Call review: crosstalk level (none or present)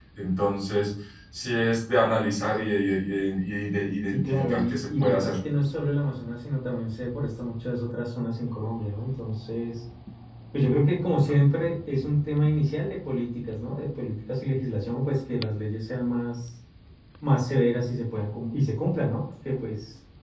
present